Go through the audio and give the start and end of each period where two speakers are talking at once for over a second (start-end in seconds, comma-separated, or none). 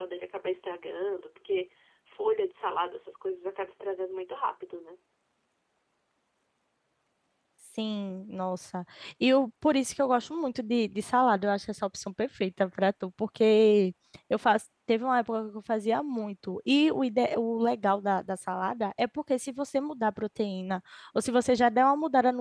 none